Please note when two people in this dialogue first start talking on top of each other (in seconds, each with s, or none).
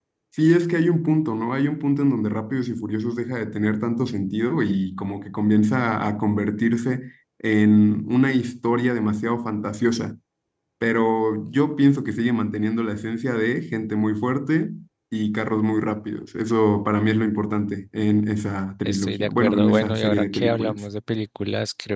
18.8 s